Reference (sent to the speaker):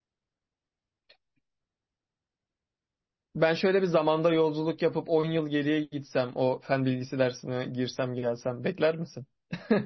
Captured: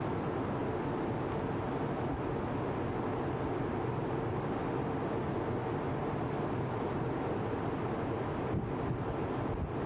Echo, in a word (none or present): none